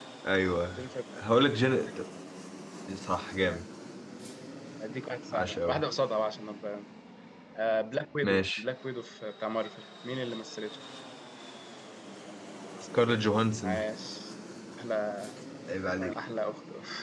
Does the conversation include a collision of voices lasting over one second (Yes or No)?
No